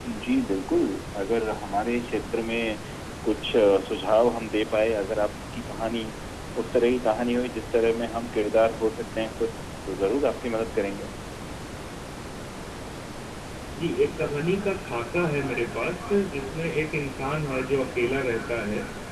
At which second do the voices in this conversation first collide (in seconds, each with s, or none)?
none